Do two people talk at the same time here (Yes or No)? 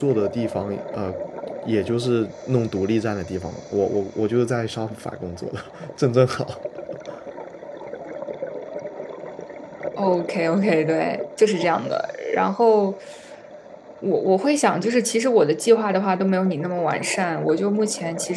No